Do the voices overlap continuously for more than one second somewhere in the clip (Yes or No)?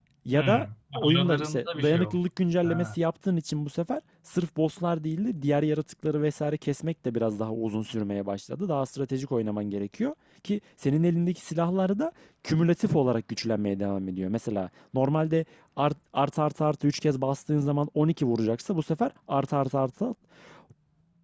Yes